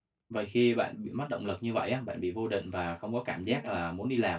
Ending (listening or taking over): listening